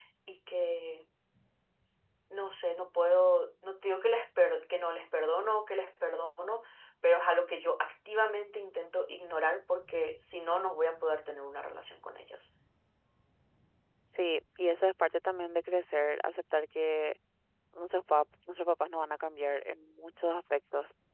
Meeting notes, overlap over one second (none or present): none